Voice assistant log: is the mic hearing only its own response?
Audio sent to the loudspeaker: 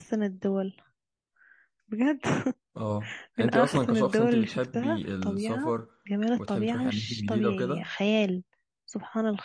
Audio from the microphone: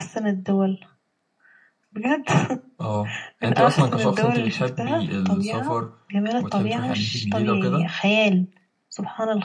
Yes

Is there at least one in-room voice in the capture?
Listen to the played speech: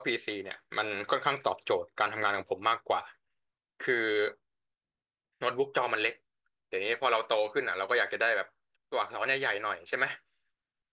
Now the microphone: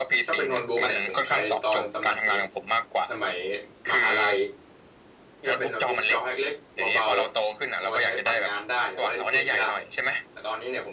Yes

